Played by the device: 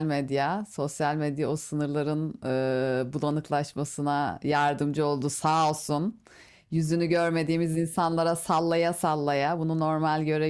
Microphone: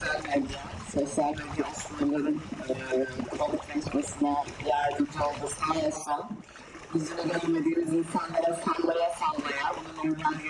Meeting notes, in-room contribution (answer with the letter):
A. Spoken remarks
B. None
B